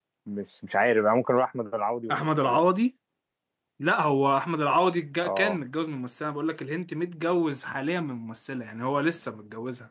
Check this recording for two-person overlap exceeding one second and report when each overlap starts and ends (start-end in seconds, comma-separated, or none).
none